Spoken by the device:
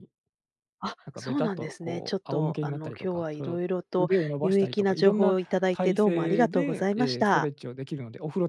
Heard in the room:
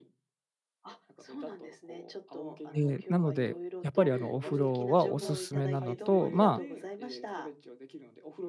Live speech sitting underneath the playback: No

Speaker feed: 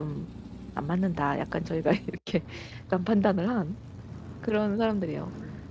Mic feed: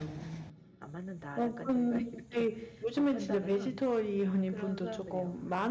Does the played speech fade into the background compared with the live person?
Yes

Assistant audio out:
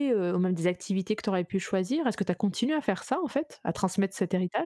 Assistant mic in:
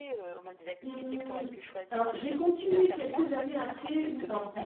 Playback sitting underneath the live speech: Yes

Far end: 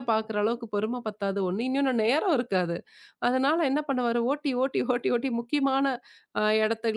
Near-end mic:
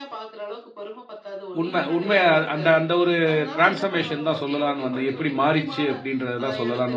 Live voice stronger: Yes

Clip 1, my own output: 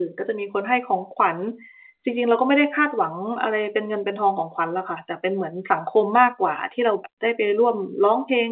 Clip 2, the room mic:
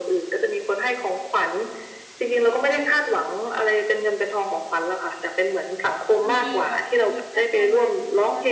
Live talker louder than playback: No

